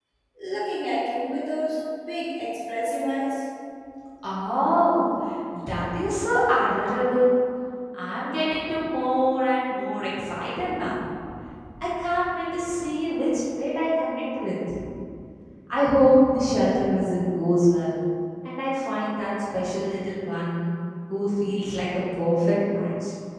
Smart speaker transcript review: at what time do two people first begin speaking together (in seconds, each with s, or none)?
none